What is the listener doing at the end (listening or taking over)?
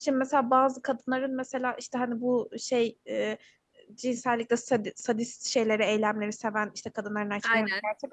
listening